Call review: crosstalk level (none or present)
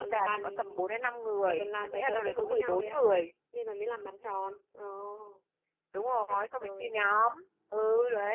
present